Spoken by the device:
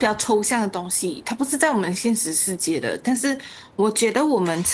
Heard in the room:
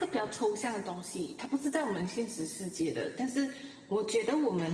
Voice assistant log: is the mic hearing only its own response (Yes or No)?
Yes